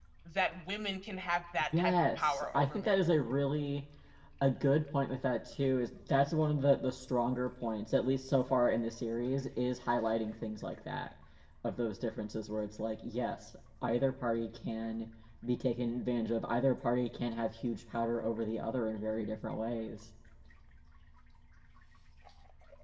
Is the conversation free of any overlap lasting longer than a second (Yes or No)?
No